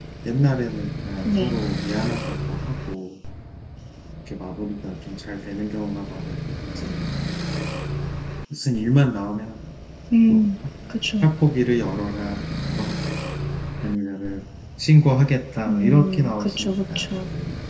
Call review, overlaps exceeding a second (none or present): present